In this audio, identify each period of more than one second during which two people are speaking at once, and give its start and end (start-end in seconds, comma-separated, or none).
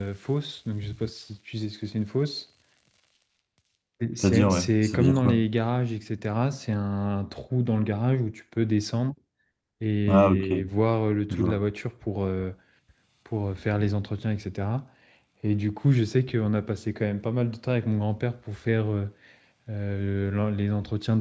4.2-5.4